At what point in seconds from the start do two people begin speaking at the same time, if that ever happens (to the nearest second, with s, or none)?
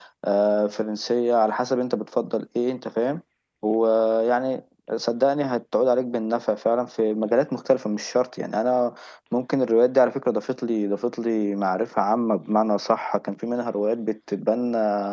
none